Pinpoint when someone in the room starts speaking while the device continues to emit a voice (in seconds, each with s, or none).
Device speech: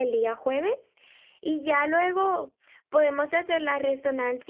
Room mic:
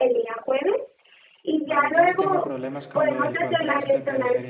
1.6 s